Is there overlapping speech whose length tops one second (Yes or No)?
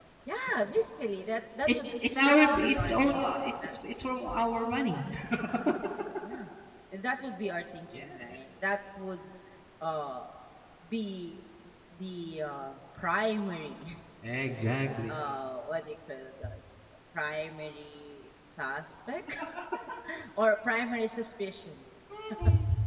Yes